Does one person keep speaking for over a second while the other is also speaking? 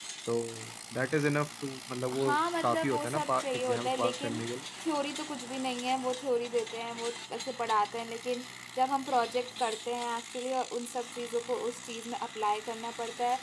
Yes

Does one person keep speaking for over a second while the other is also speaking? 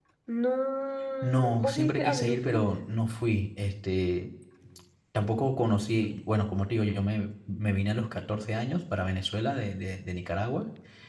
Yes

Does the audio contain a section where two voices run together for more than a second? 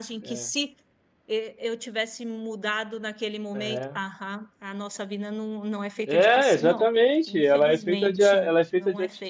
Yes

